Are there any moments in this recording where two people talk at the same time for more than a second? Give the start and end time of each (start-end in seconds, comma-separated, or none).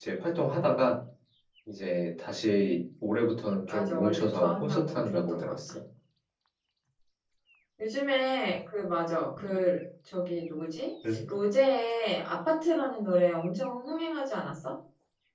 3.6-5.6